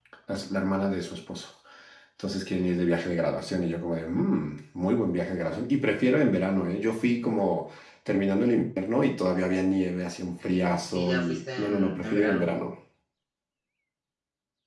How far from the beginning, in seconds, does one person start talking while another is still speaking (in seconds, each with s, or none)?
10.9 s